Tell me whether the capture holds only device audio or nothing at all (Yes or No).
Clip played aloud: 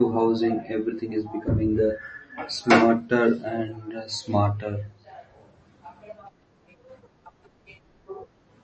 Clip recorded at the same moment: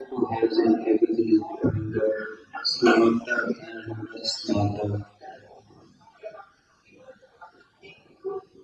Yes